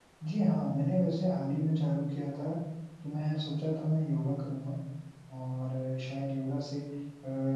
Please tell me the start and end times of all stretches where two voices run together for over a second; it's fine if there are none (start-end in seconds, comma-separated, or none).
none